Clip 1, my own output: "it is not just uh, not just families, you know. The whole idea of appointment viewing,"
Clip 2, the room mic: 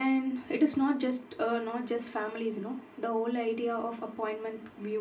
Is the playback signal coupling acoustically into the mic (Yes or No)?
Yes